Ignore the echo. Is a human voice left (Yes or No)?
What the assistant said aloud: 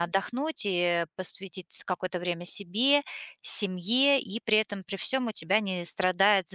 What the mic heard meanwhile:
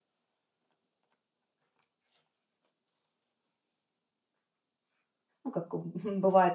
Yes